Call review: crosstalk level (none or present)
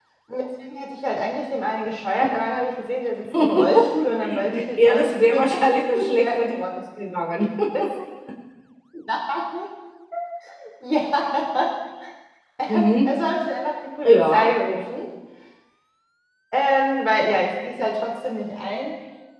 present